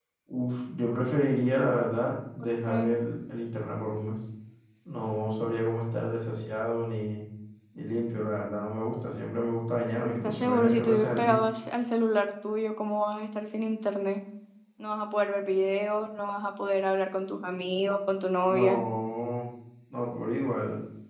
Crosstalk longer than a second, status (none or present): present